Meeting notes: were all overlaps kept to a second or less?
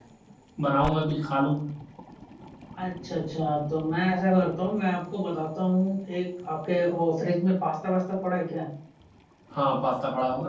Yes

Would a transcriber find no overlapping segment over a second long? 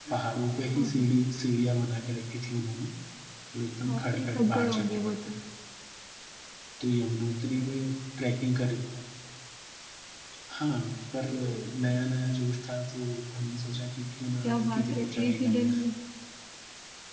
No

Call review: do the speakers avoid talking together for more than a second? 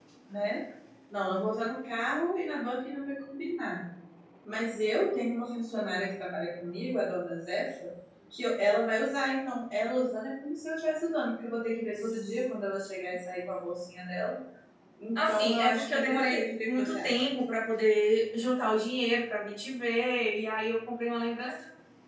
No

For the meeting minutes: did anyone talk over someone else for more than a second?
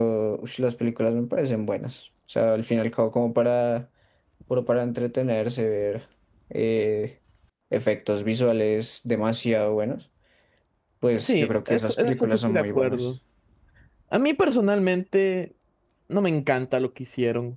Yes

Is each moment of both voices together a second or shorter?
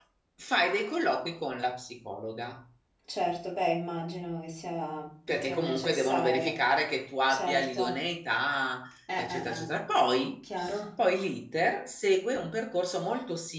No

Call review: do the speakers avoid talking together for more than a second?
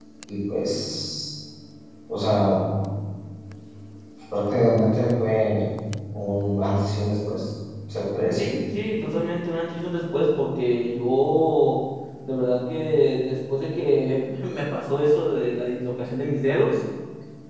Yes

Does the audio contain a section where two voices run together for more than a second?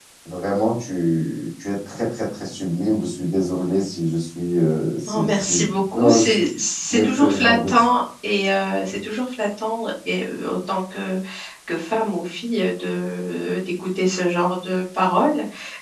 Yes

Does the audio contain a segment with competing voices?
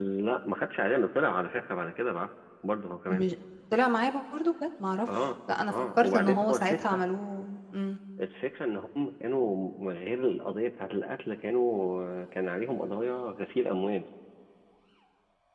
Yes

